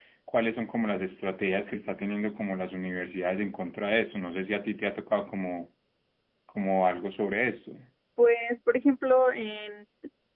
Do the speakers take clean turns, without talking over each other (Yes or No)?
Yes